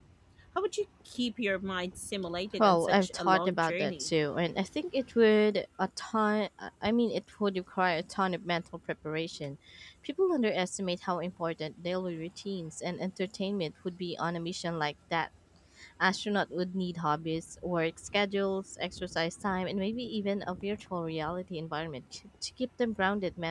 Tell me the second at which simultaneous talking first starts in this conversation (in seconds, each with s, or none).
2.6 s